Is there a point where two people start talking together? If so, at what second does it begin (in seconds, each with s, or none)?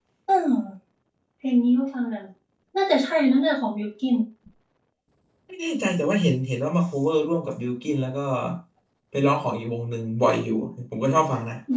none